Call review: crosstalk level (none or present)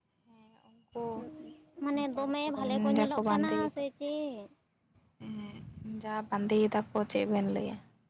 present